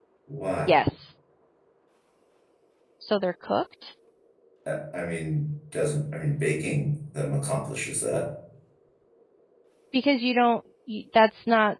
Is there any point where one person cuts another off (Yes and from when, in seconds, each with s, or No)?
No